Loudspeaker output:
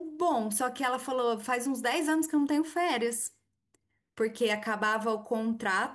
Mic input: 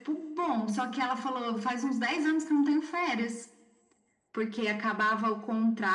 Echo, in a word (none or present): present